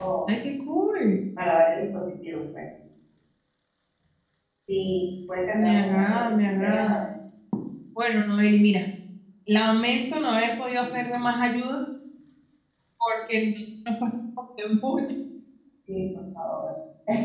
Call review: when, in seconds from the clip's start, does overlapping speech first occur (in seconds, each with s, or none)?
5.5 s